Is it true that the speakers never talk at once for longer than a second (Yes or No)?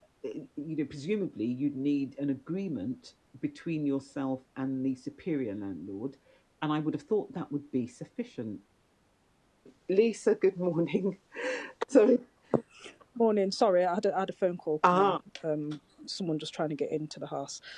Yes